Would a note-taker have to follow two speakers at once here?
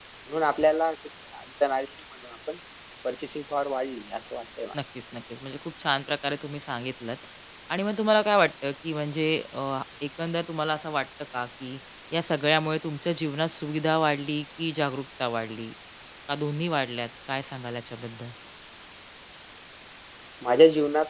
No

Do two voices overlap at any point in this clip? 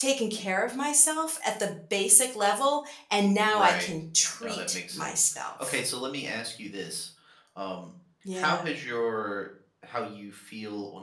Yes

